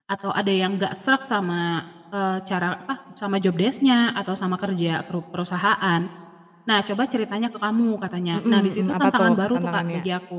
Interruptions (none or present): present